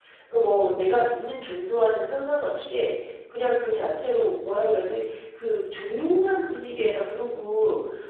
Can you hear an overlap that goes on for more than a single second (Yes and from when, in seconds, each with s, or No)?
No